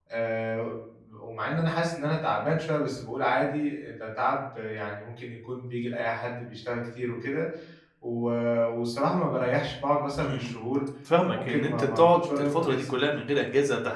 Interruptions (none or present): present